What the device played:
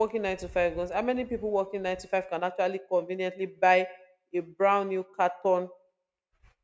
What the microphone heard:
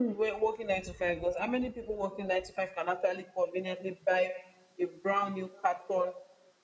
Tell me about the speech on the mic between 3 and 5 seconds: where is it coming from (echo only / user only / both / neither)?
echo only